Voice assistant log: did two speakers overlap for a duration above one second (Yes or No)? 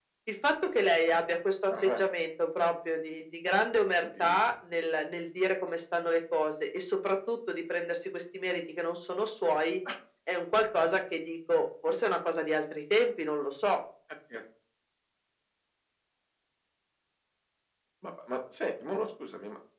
No